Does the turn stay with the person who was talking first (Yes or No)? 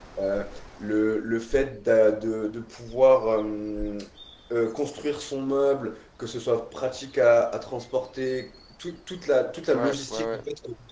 Yes